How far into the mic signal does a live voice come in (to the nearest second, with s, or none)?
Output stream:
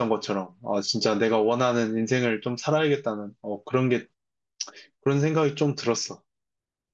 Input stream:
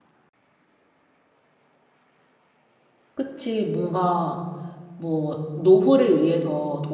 3 s